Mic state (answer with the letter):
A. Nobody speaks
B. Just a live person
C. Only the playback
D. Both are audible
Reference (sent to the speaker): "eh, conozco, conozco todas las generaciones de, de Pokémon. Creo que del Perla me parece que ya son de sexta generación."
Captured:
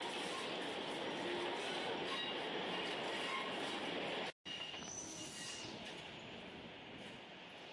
A